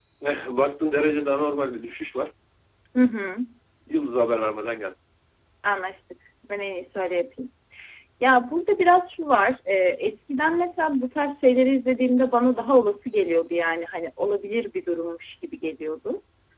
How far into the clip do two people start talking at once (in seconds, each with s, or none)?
none